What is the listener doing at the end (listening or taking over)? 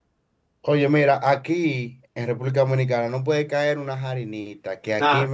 listening